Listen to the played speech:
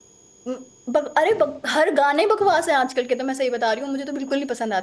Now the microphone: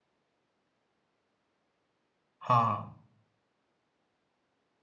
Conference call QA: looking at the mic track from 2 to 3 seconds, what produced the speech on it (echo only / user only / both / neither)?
user only